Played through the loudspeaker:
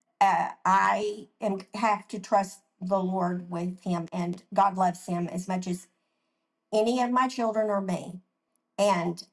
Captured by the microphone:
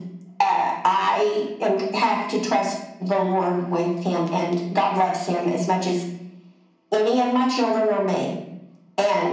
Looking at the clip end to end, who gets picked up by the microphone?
echo only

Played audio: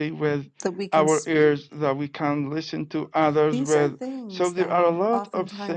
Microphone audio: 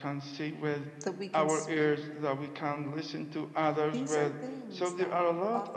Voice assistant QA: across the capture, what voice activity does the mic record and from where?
echo only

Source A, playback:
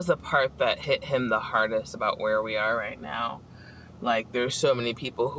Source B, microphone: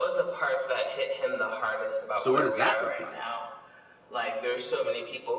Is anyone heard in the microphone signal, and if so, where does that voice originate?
both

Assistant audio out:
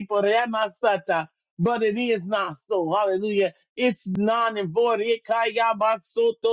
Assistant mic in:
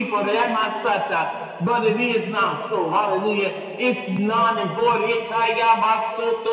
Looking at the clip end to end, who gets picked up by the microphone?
echo only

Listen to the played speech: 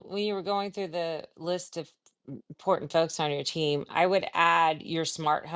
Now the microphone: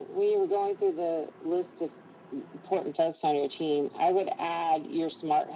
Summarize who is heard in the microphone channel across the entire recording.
echo only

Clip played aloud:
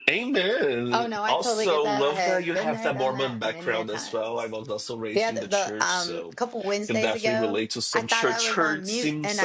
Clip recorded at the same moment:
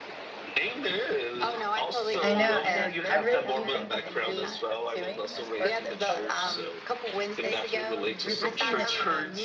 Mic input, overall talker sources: both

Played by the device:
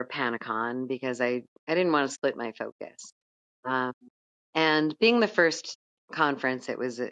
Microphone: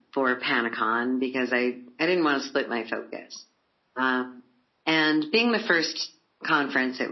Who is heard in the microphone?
echo only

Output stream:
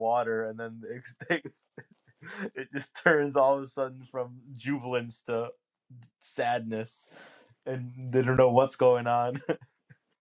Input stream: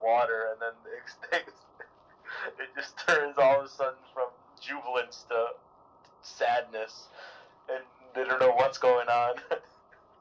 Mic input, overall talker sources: echo only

